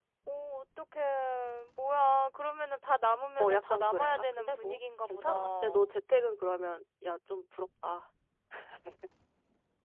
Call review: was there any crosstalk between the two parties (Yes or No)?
Yes